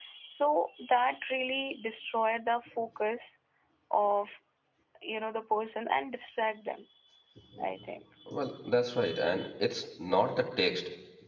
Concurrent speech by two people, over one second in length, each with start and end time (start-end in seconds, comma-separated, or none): none